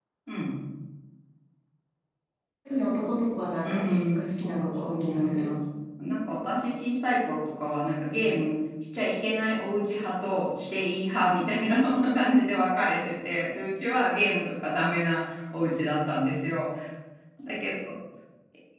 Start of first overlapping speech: 3.6 s

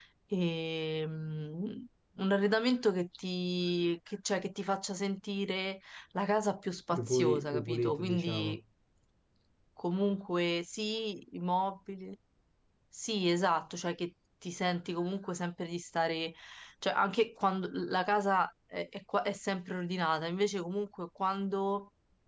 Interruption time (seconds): 6.9 s

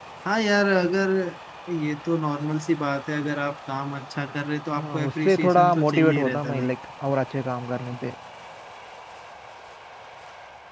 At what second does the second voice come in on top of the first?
4.8 s

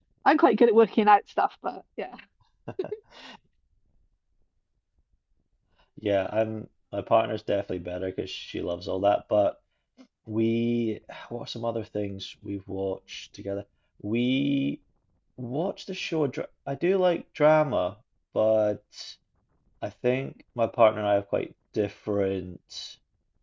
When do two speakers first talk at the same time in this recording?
none

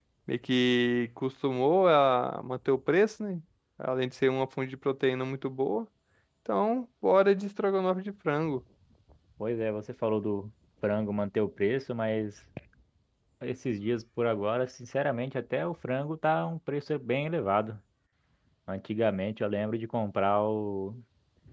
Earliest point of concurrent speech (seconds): none

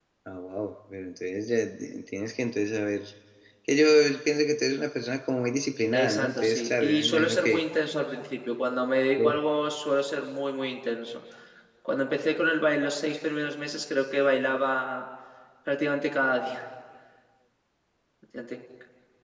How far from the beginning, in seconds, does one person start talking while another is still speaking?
5.9 s

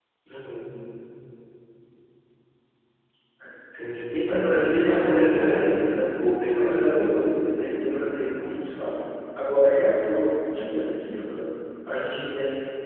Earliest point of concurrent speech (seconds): 4.3 s

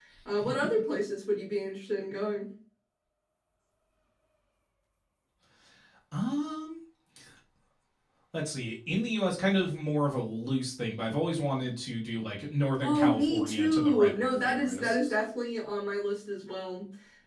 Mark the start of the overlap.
12.8 s

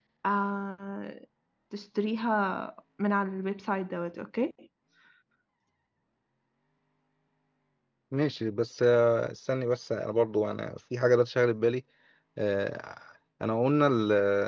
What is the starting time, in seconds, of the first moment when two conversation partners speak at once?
none

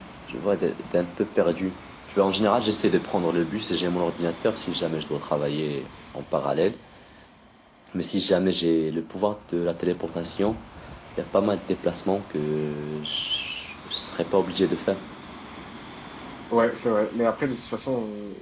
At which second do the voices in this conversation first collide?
none

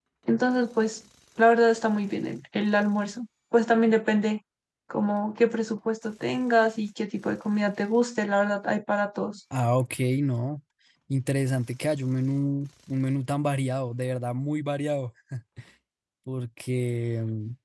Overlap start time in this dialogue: none

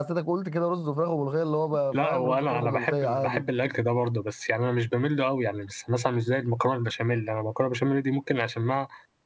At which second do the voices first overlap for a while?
1.9 s

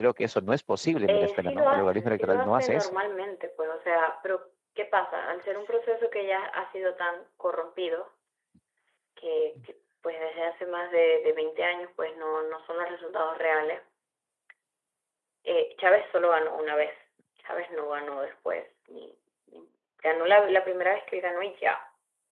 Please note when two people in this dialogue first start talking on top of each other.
1.1 s

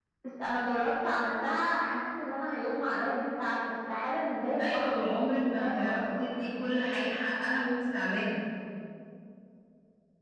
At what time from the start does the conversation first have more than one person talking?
4.6 s

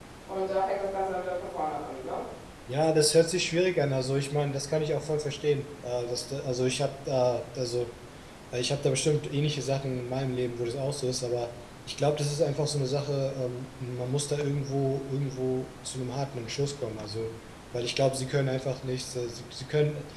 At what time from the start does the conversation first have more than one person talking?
none

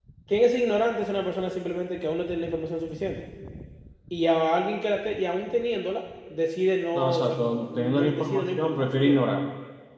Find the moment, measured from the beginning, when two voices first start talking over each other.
6.9 s

